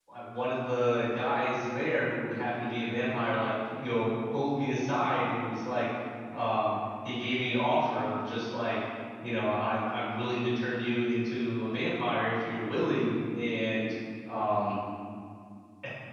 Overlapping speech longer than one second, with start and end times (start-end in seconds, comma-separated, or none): none